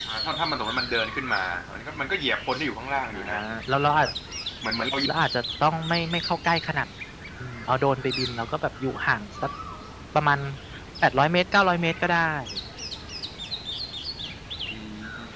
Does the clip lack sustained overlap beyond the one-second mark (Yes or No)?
Yes